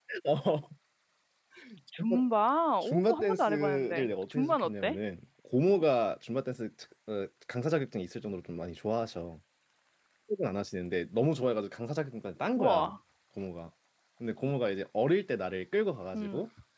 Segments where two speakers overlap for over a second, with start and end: 2.8-5.0

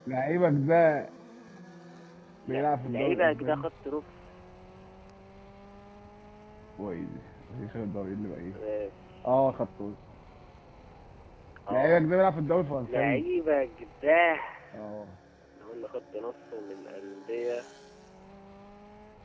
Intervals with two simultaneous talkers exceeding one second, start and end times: 2.5-3.7

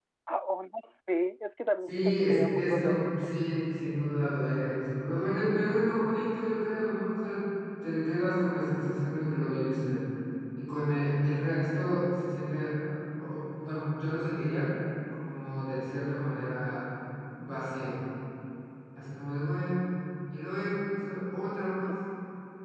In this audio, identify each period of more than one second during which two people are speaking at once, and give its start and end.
1.9-3.1

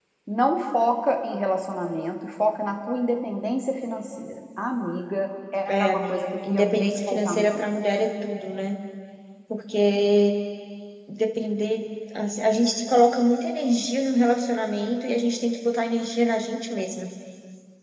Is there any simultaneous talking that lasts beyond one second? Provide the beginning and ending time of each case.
5.7-7.7

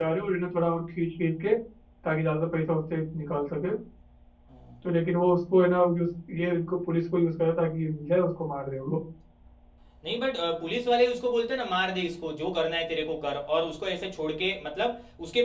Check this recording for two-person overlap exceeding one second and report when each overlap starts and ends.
none

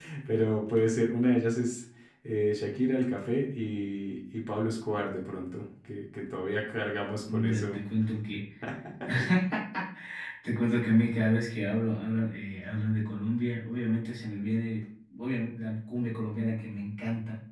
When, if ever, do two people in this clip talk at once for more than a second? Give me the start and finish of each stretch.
none

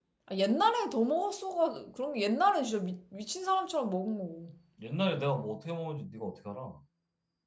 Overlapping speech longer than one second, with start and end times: none

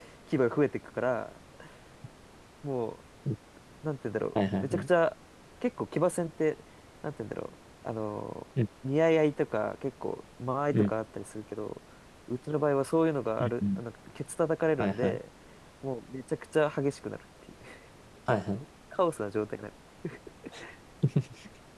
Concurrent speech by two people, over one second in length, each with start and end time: none

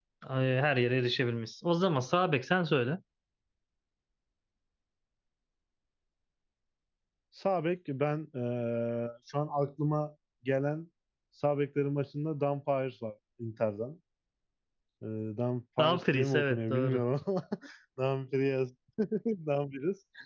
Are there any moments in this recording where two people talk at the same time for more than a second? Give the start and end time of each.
15.8-17.0

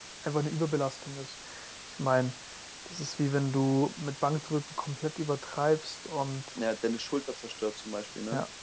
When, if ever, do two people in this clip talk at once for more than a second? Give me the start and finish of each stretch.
none

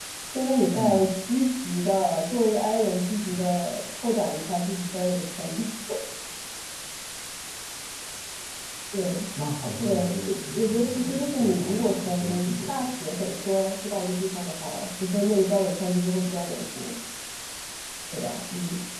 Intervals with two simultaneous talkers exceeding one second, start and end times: 9.8-12.9

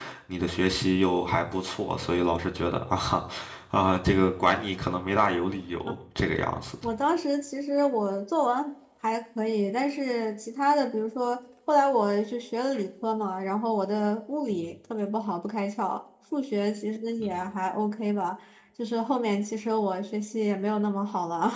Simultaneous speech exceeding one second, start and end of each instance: none

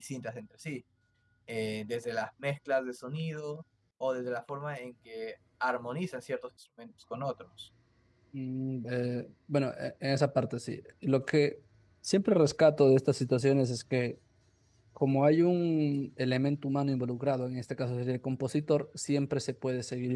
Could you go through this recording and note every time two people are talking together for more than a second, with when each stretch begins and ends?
none

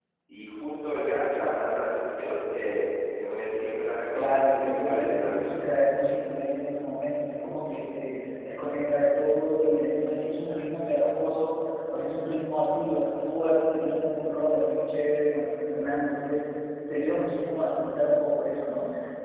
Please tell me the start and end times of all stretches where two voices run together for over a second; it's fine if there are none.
4.1-5.5

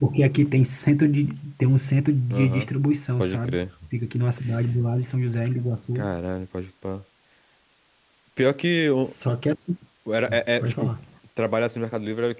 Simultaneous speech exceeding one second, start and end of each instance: none

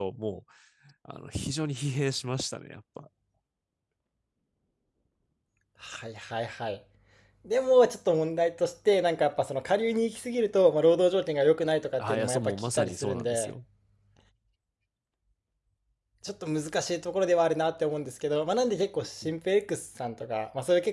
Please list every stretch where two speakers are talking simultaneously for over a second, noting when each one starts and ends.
12.0-13.5

